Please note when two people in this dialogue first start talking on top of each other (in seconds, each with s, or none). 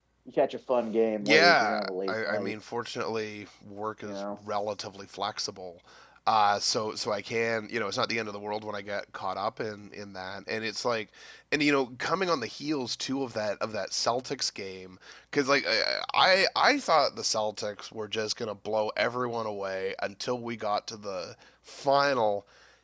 1.2 s